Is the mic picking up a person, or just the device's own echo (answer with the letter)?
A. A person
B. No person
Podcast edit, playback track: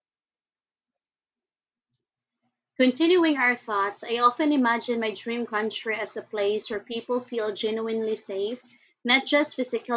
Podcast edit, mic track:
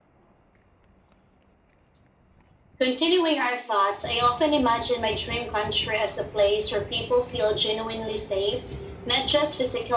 B